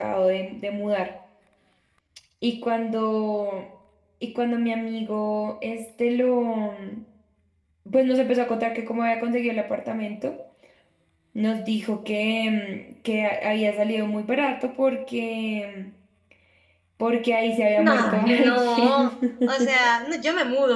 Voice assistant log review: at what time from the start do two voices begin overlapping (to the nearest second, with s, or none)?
18 s